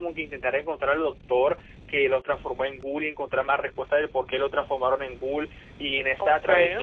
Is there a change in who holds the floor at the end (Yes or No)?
No